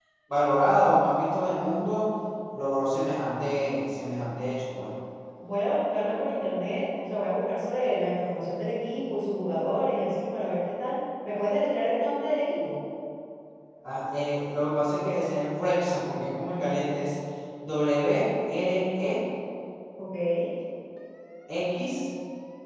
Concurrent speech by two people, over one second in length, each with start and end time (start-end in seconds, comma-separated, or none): none